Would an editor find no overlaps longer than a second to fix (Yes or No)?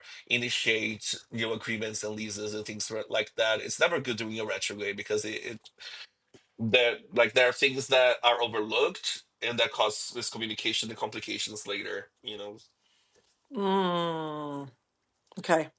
Yes